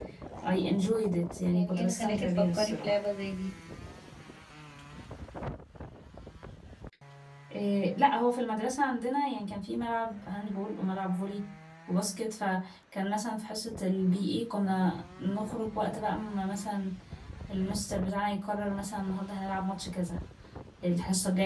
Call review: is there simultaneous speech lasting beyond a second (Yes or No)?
Yes